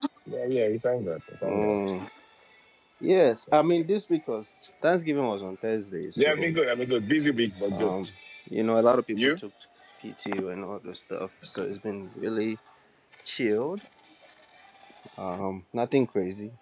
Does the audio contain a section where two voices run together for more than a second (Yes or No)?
No